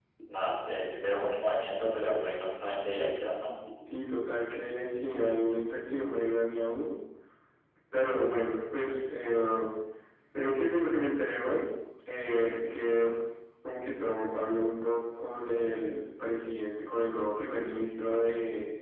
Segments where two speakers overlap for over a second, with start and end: none

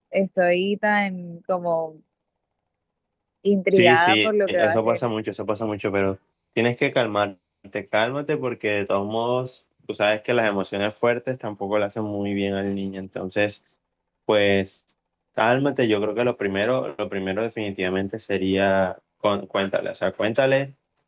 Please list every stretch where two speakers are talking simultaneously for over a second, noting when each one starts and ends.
3.7-5.0

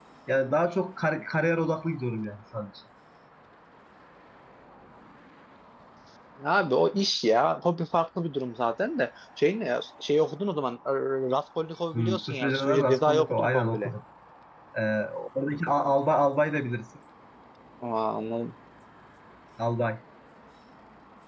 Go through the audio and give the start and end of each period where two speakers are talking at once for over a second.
11.9-13.9

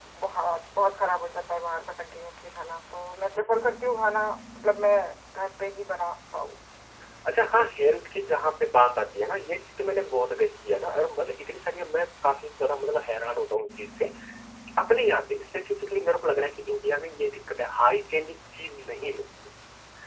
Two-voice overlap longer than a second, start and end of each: none

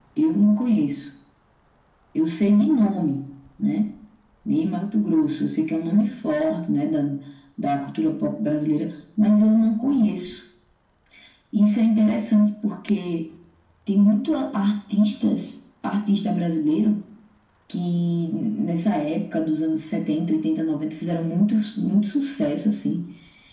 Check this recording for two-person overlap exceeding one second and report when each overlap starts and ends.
none

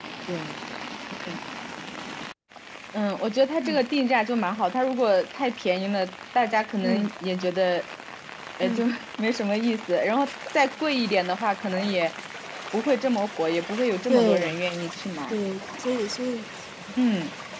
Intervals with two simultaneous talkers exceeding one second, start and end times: none

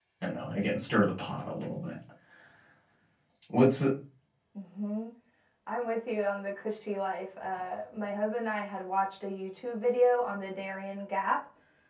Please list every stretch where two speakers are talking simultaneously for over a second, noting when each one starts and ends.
none

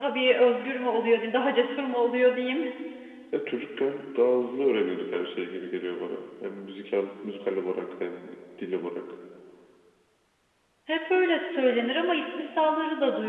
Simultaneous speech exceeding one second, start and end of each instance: none

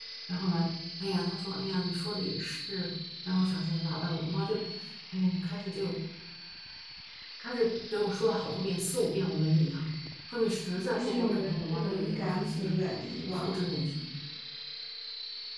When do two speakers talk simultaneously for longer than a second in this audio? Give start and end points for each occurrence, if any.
10.9-12.8

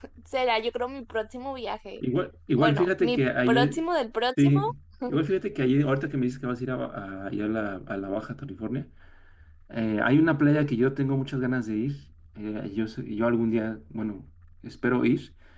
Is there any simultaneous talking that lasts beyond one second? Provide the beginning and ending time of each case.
2.6-3.8

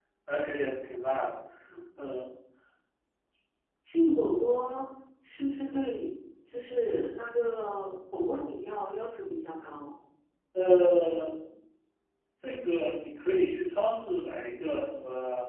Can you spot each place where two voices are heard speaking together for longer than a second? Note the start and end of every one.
none

